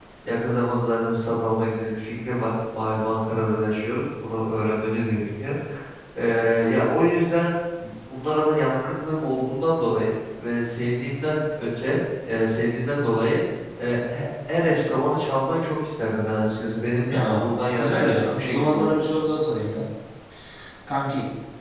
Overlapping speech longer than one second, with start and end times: 17.1-18.9

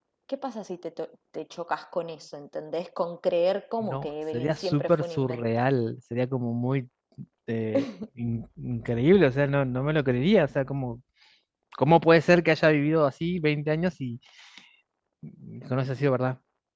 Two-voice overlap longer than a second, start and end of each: 3.8-5.4

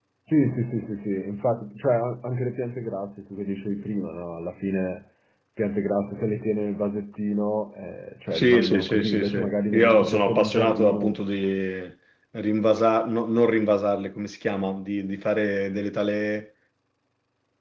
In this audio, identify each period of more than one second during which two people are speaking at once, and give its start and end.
8.3-11.2

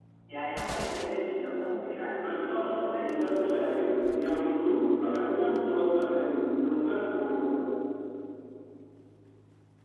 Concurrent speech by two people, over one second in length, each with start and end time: 2.2-3.8

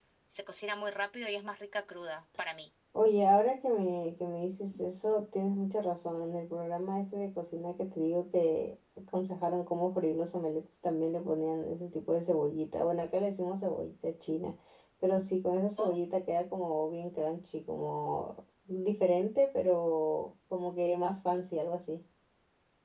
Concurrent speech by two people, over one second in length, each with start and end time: none

